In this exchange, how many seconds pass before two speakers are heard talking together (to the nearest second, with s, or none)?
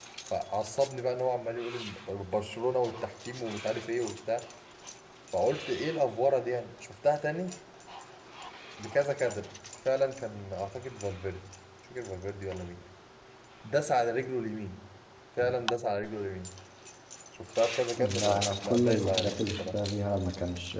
18 s